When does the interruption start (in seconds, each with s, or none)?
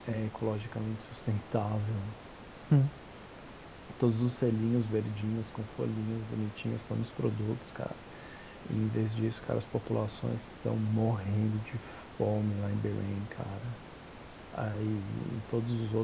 none